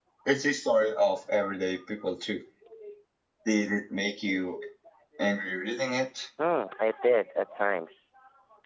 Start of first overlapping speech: none

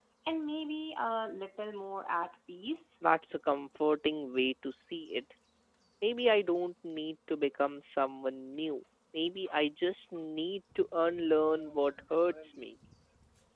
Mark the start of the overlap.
none

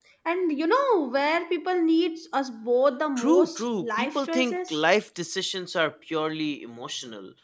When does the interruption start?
3.2 s

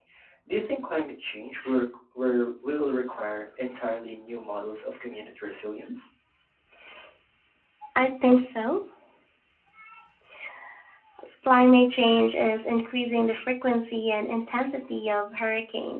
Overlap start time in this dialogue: none

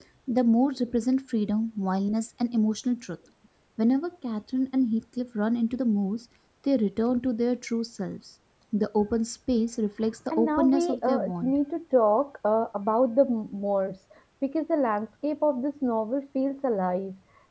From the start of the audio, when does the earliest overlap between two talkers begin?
10.3 s

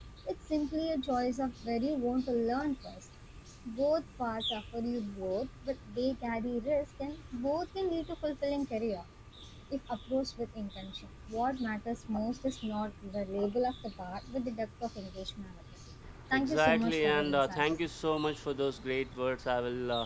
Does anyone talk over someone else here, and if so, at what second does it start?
16.3 s

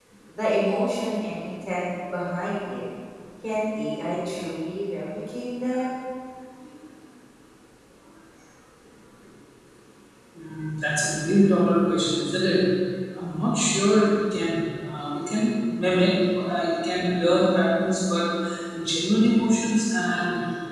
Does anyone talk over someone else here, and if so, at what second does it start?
none

